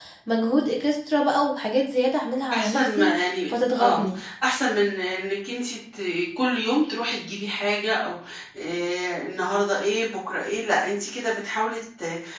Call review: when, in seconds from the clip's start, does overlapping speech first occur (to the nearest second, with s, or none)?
3 s